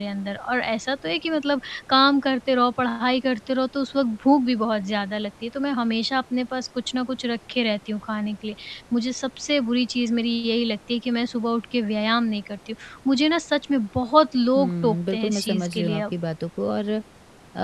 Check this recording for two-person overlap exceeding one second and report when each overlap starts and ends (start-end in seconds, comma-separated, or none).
14.6-16.1